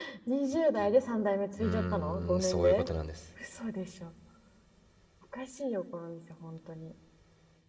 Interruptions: present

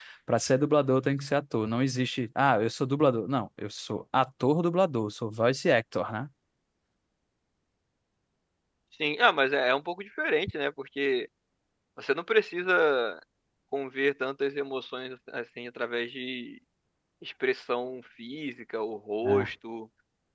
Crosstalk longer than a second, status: none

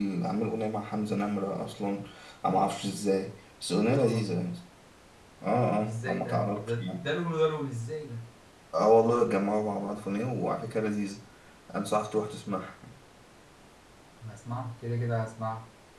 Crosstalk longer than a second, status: present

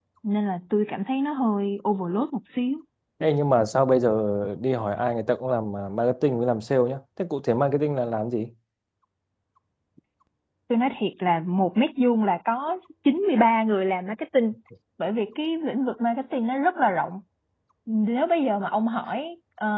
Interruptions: none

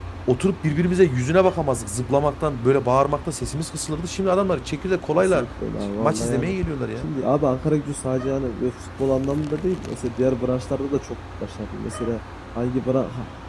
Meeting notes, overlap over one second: none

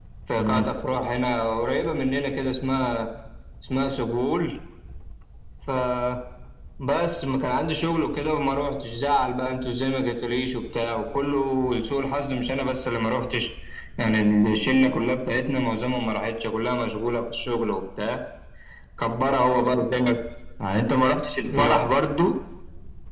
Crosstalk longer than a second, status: none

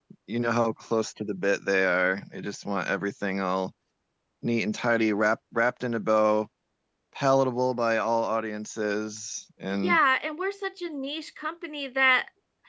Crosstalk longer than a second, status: none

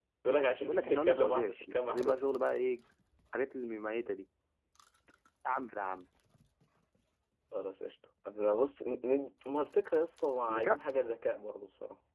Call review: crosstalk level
present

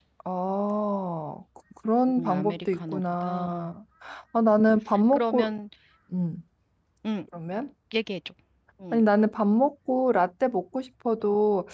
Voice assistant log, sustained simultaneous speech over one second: present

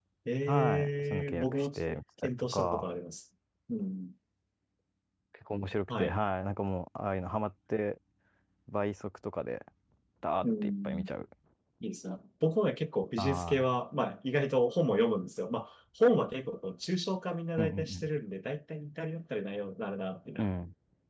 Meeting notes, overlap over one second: present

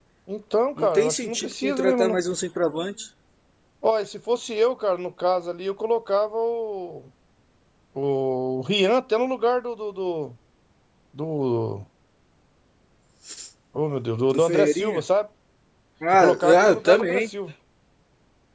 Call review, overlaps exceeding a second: present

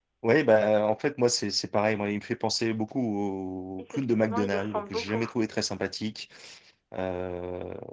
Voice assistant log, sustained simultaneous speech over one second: present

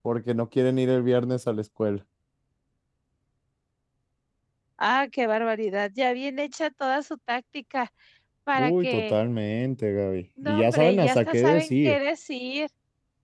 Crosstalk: present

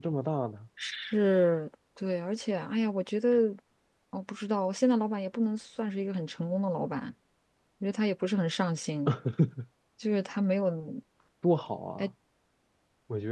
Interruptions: none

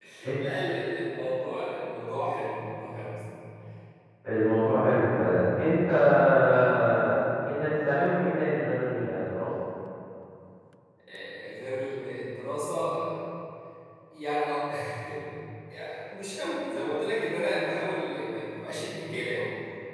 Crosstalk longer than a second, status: none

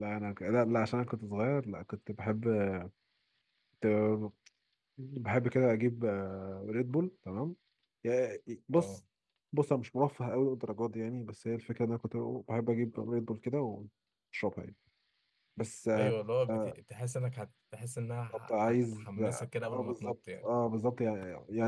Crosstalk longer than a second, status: present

